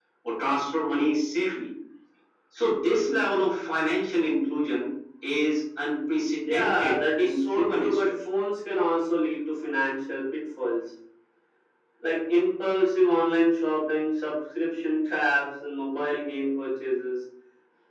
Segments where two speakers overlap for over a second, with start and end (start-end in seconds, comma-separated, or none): 6.5-8.2